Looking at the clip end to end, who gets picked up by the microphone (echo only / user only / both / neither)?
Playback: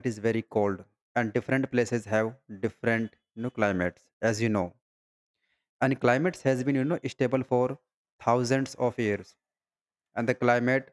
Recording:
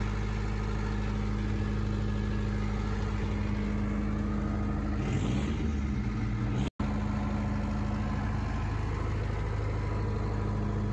neither